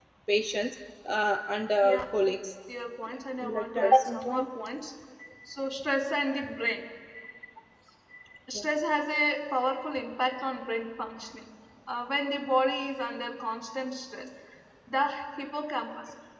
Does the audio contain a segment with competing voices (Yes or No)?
Yes